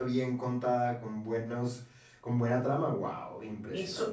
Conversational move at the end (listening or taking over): taking over